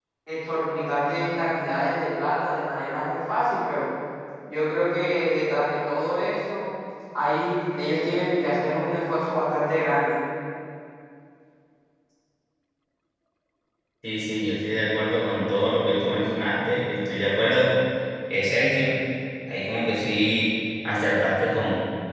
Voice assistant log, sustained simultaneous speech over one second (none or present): none